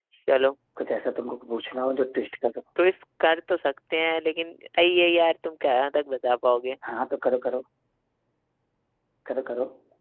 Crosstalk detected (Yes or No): No